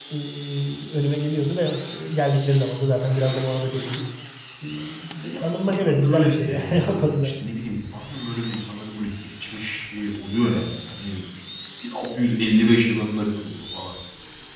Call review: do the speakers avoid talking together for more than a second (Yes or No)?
No